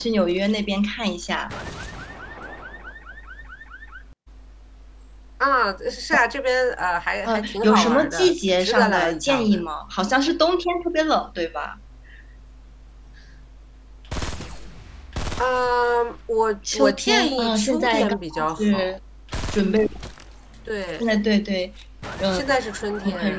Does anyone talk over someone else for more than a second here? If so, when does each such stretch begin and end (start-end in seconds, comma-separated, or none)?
7.2-9.6, 16.7-18.9